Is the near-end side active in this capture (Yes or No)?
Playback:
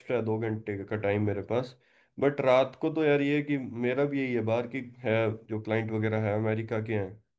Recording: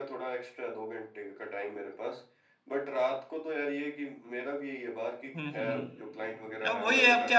Yes